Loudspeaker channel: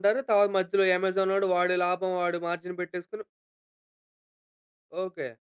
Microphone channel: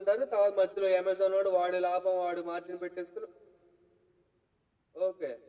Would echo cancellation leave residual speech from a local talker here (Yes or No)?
No